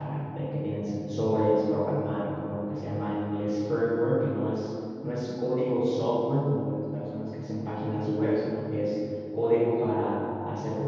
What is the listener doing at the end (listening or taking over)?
listening